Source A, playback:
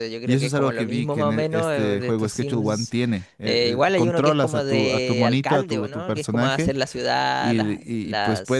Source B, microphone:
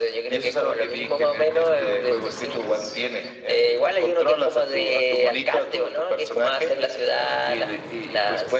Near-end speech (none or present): none